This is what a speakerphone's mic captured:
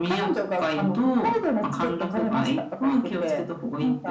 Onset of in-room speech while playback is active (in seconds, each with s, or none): none